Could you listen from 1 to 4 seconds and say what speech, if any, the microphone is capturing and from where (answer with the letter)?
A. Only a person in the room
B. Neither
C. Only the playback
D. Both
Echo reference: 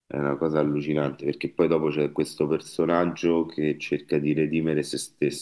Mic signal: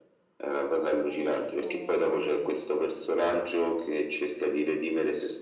D